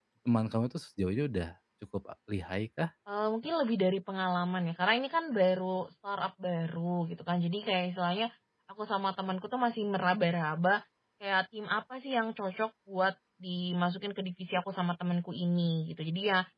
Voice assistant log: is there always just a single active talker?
Yes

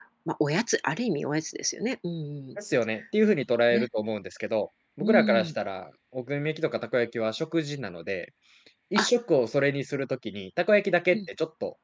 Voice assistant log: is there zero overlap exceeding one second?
Yes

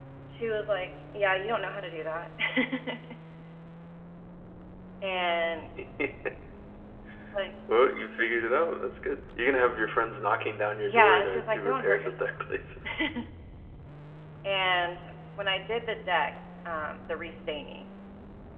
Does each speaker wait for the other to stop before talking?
No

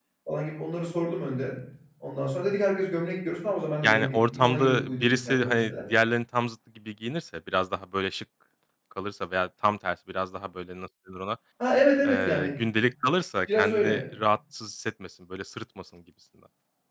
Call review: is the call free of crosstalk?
No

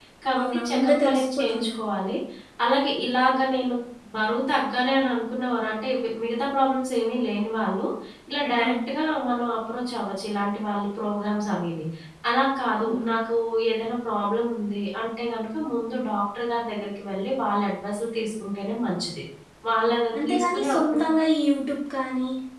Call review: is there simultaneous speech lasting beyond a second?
Yes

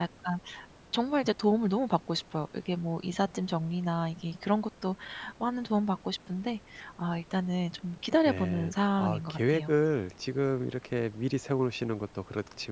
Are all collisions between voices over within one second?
No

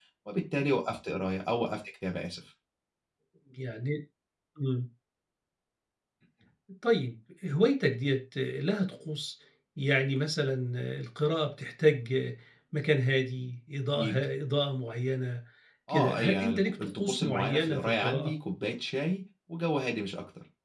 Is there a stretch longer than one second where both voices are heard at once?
Yes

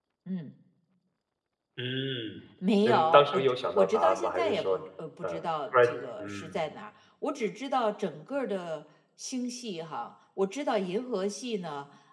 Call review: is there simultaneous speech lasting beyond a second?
Yes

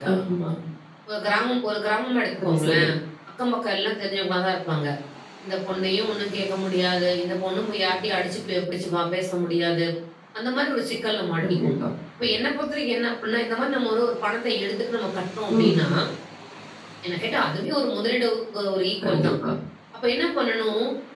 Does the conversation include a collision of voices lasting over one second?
No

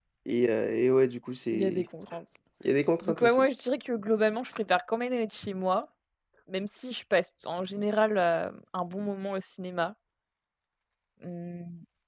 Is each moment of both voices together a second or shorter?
Yes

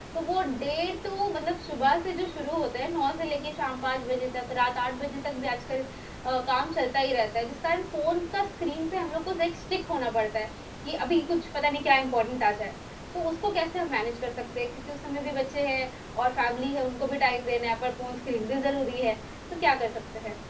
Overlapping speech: No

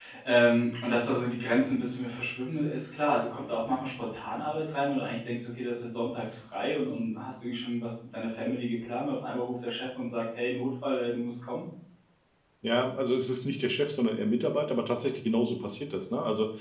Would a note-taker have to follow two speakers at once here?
No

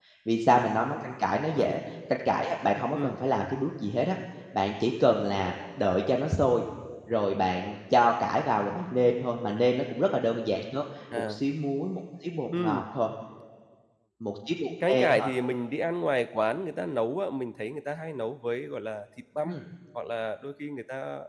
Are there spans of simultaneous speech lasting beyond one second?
No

